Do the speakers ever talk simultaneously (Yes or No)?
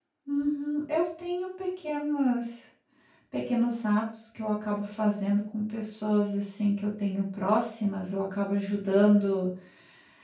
No